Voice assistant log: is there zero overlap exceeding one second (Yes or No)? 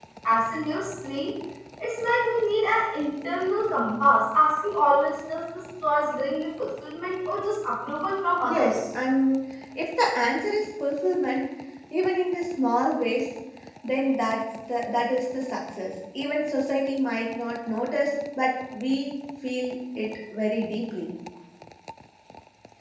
Yes